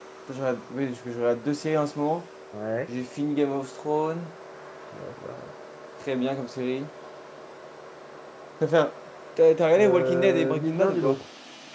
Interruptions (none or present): present